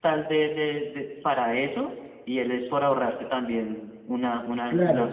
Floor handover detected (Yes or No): Yes